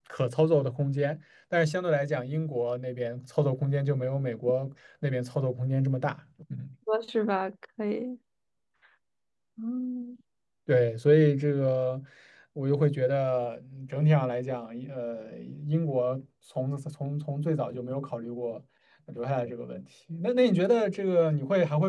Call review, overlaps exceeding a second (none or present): none